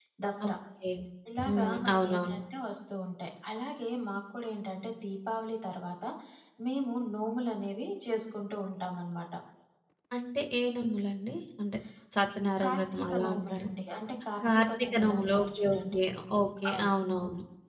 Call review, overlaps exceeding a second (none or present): present